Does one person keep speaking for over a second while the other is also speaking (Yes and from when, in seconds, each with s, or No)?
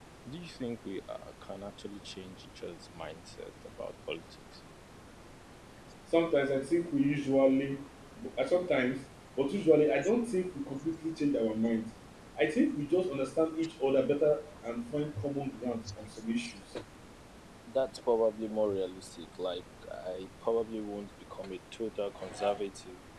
No